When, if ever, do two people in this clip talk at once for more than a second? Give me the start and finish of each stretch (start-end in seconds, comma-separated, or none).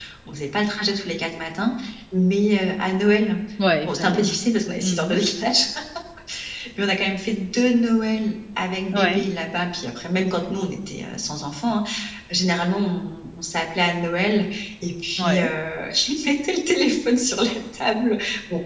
none